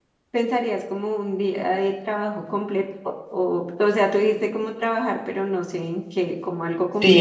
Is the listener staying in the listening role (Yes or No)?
No